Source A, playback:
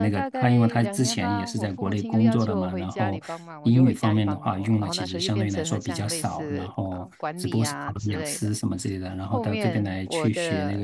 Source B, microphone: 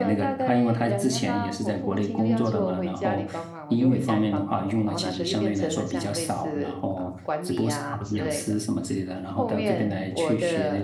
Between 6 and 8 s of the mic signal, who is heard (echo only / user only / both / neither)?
echo only